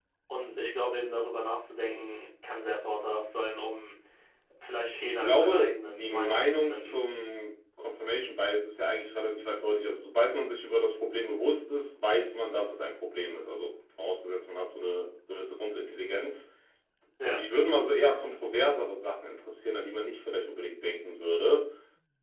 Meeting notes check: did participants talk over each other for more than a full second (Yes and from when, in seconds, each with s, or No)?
Yes, from 5.0 s